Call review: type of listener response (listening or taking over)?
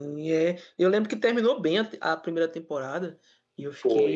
listening